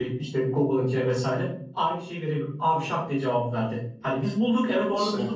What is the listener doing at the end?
listening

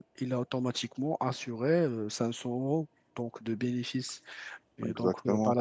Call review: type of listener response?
listening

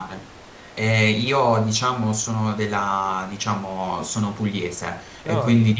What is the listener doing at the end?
listening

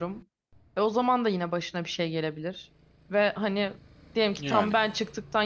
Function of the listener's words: listening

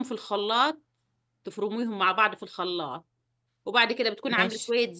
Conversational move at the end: listening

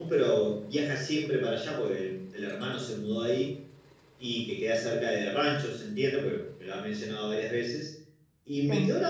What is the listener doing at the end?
listening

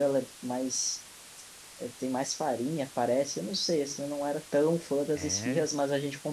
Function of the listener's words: listening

